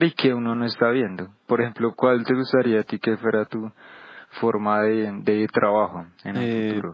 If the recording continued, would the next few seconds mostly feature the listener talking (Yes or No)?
Yes